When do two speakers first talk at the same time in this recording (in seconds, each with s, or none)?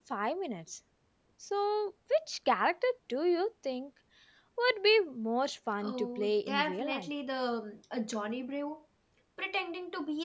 5.8 s